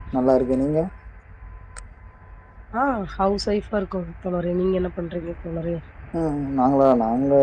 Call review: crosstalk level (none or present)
none